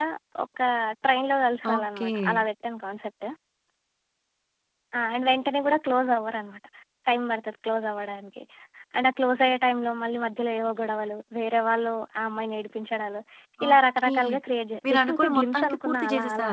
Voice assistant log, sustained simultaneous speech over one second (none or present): present